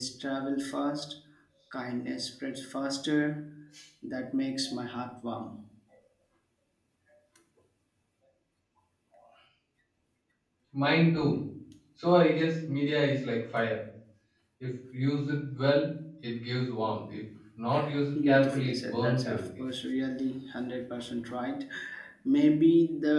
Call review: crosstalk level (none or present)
present